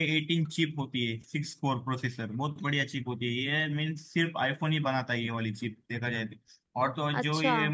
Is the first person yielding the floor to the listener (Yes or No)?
No